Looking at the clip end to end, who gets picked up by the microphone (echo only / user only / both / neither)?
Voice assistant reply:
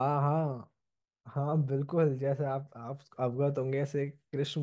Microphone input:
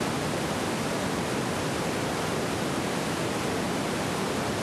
neither